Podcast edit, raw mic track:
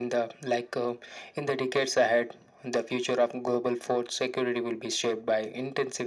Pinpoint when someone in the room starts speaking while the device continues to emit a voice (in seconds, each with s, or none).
none